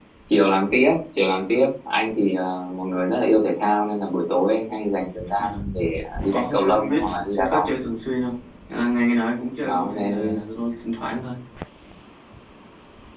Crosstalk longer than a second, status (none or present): present